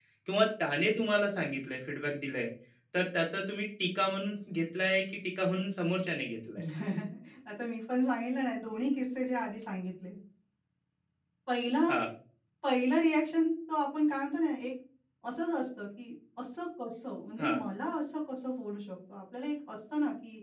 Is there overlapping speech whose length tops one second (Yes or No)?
No